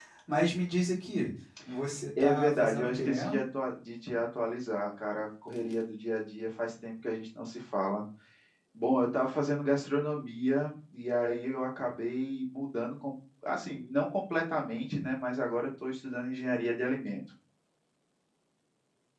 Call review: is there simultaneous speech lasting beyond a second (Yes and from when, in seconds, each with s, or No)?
Yes, from 2.1 s